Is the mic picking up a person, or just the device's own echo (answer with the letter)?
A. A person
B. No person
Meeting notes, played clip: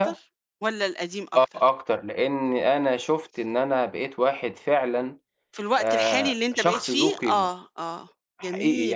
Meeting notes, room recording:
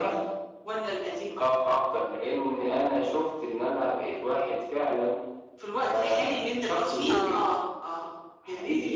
A